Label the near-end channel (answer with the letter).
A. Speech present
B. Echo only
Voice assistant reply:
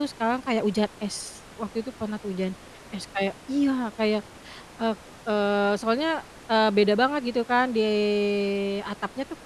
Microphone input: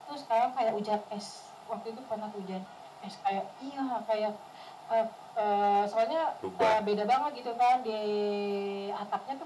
A